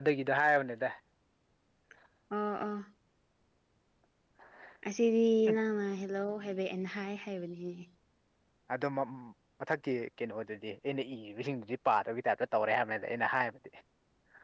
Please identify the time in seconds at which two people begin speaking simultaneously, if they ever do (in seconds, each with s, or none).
none